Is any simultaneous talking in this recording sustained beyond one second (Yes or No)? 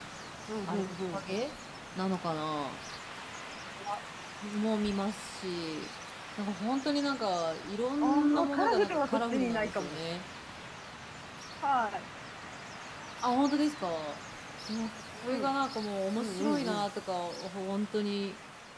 Yes